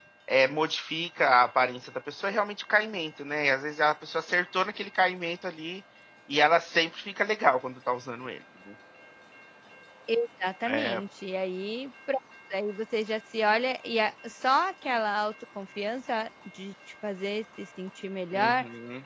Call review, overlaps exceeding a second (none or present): none